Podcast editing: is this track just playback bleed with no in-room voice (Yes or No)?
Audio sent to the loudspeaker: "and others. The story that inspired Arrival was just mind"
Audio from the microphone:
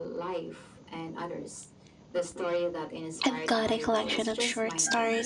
No